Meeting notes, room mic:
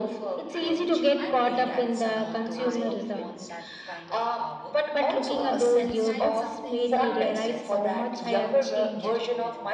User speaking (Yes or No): Yes